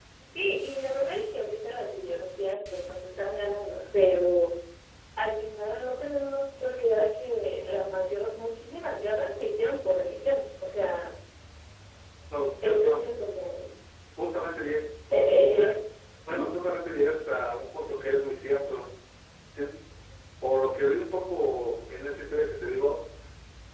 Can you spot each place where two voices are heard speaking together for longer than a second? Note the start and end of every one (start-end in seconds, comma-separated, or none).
none